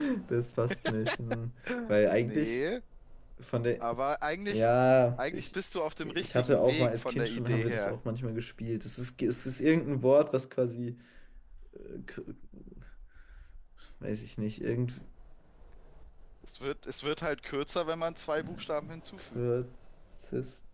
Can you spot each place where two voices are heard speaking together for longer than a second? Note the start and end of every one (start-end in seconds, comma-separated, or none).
6.0-8.0